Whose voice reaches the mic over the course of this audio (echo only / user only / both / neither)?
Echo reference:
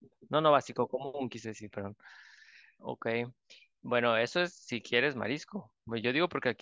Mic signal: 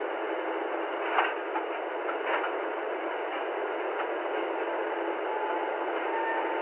neither